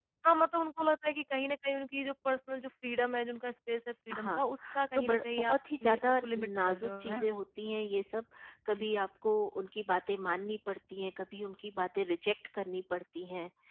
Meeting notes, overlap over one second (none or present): present